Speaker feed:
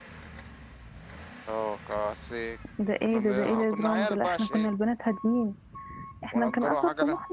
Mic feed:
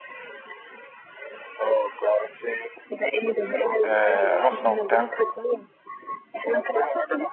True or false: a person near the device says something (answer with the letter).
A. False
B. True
B